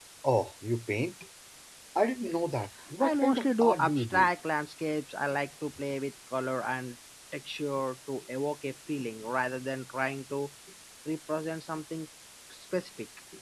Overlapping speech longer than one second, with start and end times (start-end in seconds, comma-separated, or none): 3.0-4.3